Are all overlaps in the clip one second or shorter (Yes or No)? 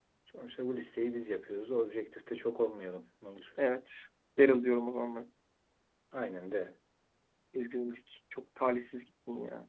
Yes